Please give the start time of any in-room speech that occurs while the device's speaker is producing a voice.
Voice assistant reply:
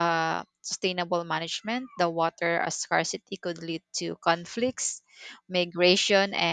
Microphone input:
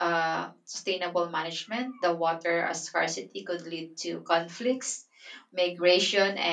none

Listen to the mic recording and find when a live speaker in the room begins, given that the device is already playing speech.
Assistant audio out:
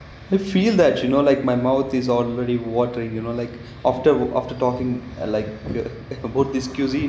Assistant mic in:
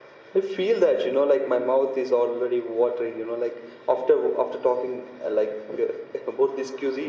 none

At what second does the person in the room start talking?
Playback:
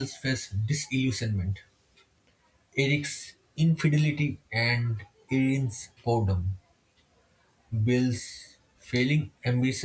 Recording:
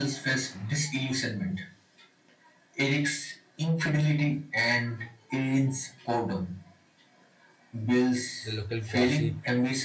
8 s

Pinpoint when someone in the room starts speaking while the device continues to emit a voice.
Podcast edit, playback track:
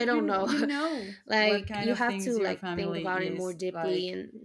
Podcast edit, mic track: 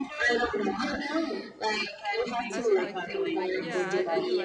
3 s

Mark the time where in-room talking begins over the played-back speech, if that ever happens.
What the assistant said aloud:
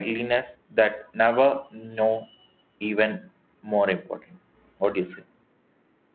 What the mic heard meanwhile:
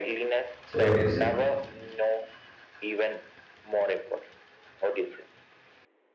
1 s

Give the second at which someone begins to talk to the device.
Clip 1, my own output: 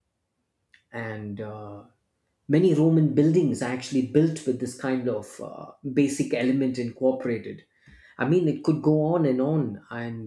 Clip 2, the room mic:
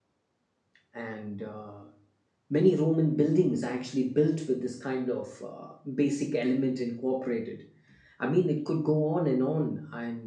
none

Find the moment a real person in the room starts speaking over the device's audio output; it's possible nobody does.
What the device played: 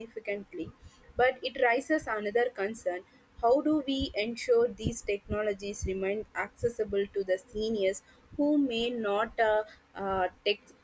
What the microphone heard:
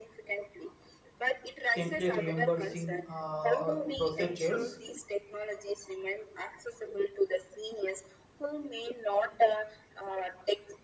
2 s

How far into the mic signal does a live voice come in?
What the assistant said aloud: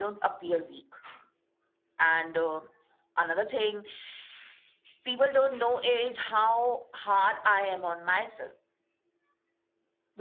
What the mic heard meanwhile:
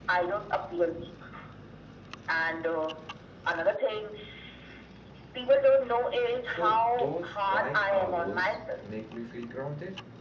6 s

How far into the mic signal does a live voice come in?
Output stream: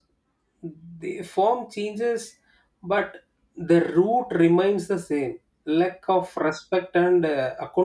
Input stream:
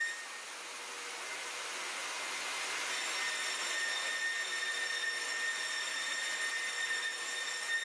none

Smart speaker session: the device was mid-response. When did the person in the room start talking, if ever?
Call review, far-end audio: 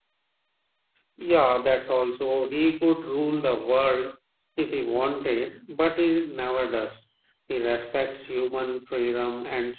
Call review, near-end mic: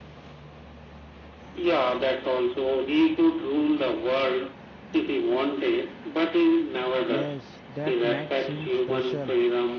7 s

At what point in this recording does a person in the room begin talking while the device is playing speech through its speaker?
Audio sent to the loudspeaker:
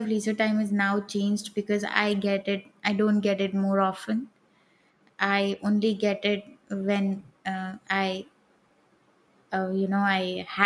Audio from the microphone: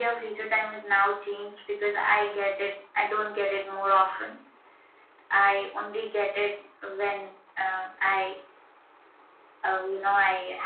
none

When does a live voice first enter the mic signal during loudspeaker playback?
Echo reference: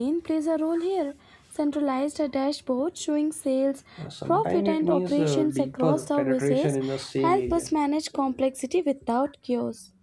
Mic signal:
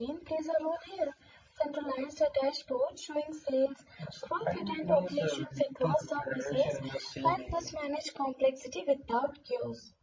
none

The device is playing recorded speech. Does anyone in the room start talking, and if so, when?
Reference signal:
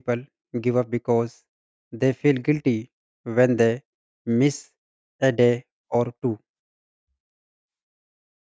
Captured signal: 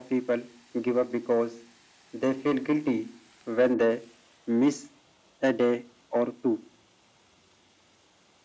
none

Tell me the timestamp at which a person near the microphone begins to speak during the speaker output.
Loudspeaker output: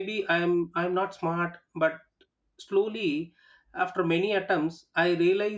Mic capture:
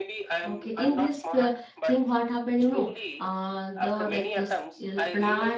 0 s

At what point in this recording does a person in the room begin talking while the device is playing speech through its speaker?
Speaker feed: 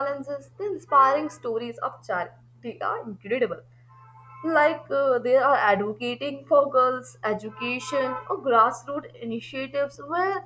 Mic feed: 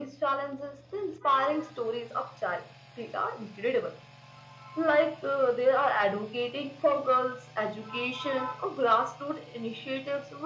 none

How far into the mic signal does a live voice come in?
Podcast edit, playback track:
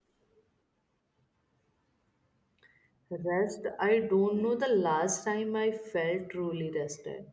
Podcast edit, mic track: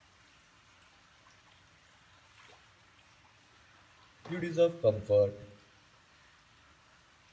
4 s

